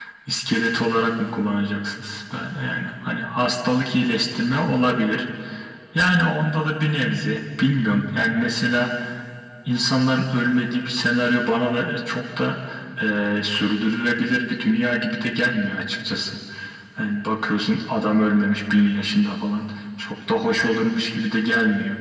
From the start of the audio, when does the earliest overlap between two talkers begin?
none

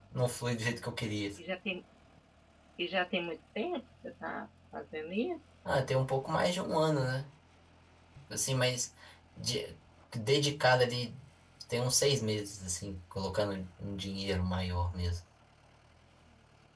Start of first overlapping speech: none

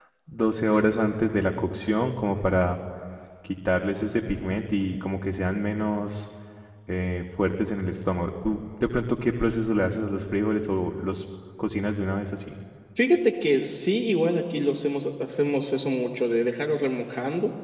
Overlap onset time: none

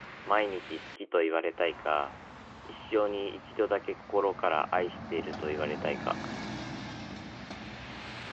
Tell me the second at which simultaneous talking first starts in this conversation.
none

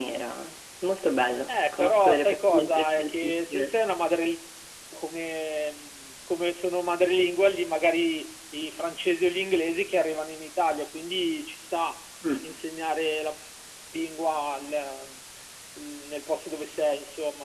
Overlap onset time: 1.5 s

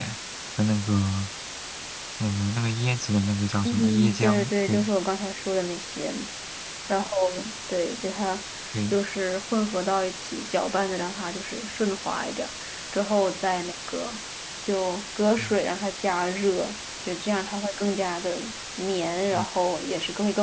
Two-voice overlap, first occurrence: 3.6 s

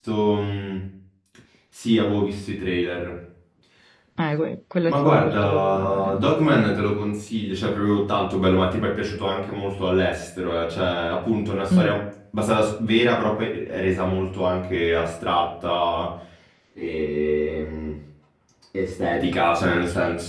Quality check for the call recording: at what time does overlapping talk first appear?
4.9 s

